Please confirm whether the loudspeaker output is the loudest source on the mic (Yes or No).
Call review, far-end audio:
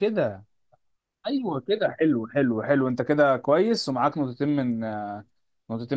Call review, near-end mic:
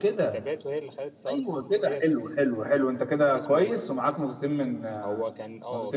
Yes